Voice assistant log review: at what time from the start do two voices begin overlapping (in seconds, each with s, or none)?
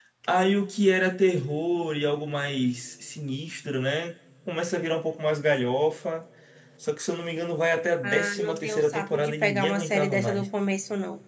8.0 s